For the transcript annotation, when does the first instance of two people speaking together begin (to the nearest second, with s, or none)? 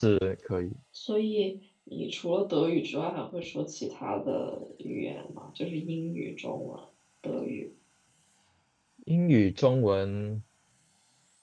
none